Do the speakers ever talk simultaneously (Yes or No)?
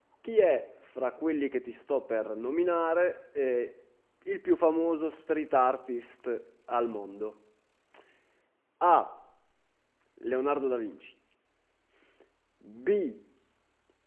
No